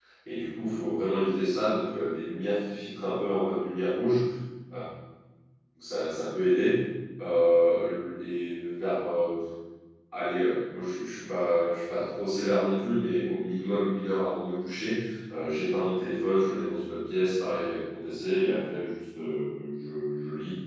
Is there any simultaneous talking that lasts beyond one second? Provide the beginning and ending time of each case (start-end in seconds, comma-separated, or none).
none